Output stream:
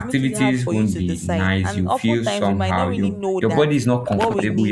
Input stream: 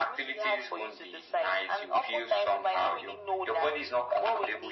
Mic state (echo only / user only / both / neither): echo only